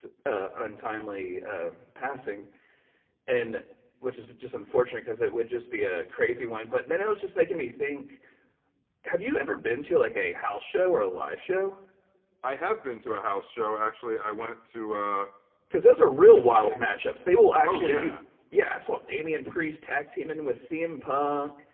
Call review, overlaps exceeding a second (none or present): none